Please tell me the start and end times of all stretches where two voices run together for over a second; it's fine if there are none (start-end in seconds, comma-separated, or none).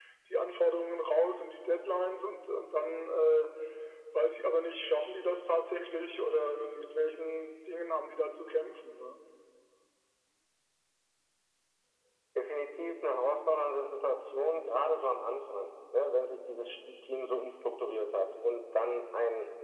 none